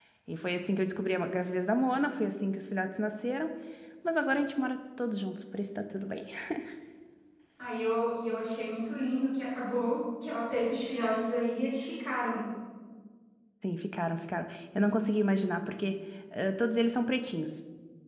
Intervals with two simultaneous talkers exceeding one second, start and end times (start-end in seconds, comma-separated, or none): none